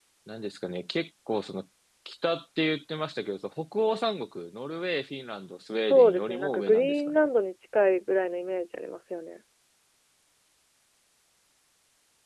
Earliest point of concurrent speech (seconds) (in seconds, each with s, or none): 5.8 s